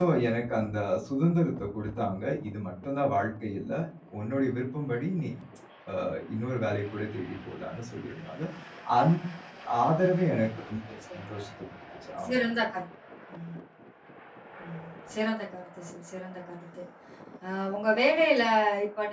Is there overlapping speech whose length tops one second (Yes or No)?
No